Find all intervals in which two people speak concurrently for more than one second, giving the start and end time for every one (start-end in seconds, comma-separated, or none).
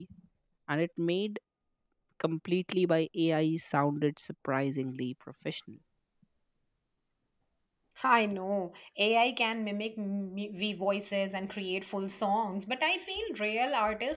none